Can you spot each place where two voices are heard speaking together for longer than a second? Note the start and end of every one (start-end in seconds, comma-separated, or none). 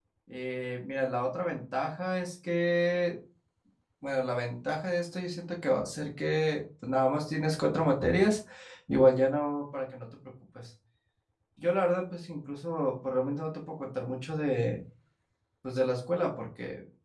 none